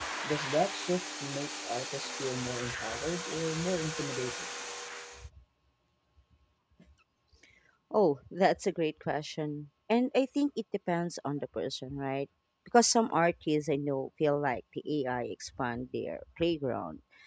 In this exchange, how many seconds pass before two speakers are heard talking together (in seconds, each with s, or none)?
none